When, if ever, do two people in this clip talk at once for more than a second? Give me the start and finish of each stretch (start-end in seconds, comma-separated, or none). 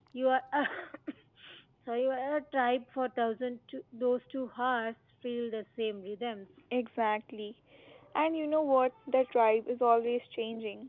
none